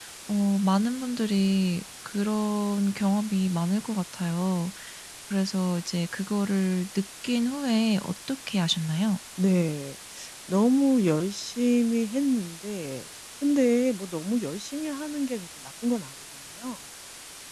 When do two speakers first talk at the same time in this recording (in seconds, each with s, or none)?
none